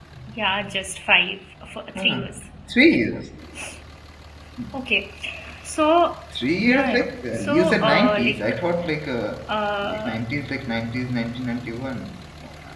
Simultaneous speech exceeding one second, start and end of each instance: 6.7-8.5

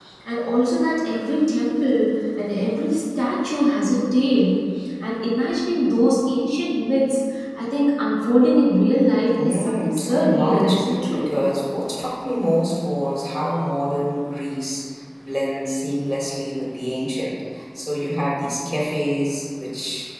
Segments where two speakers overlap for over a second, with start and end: 9.4-11.2

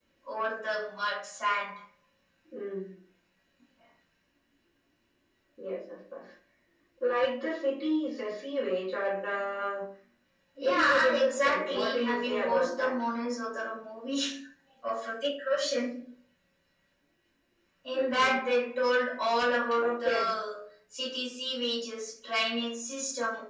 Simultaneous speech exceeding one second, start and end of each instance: 10.6-12.9

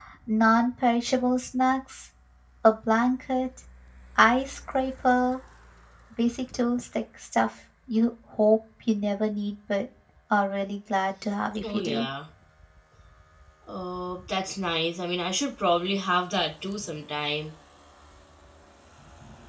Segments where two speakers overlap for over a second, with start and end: none

